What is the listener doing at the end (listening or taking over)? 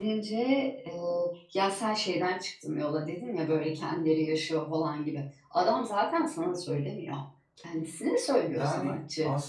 taking over